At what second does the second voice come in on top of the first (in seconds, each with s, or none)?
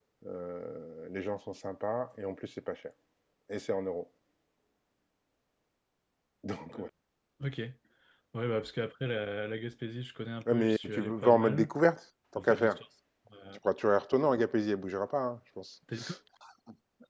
10.5 s